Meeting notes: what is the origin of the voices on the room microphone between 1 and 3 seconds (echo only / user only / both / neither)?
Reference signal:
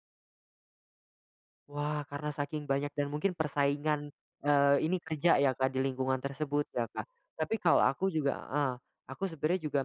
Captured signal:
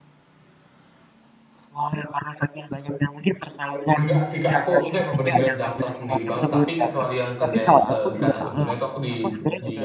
echo only